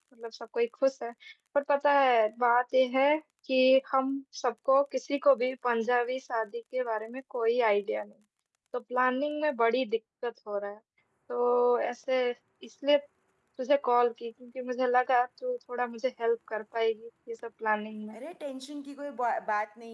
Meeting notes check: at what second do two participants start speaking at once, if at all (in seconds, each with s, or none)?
none